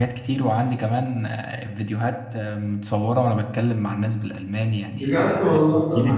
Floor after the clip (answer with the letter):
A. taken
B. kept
A